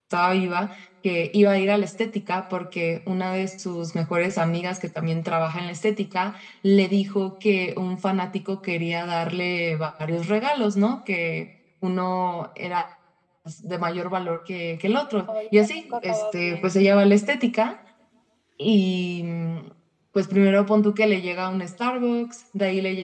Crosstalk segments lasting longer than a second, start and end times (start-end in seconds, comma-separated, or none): 15.5-16.8